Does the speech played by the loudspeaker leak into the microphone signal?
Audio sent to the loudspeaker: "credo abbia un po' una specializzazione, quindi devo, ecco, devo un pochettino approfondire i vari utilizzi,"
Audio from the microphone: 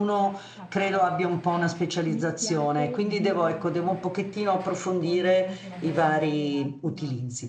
Yes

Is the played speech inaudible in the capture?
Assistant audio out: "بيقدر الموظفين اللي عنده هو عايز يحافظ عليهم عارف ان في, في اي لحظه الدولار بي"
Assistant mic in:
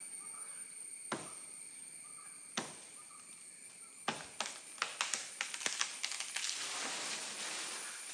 Yes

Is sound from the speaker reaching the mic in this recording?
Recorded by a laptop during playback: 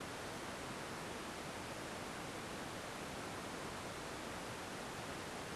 No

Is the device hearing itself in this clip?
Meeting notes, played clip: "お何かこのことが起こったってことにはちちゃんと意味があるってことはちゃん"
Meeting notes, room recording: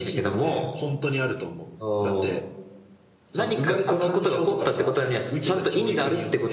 Yes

